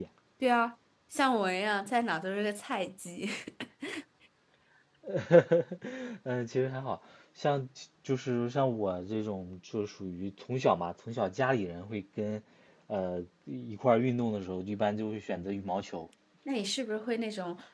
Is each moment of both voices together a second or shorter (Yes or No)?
Yes